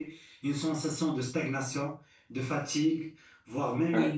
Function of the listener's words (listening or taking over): listening